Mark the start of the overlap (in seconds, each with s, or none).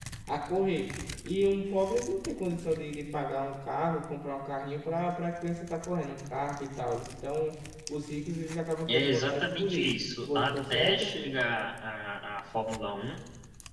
8.9 s